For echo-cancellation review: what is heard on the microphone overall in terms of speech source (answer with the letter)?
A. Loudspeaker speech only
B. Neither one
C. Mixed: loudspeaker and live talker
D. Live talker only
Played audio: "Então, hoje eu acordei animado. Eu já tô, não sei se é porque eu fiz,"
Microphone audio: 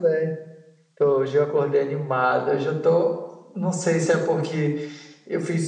A